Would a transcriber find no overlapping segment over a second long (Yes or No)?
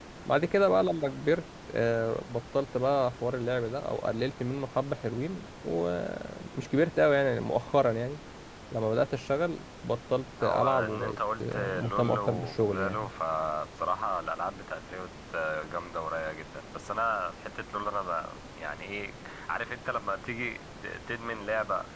No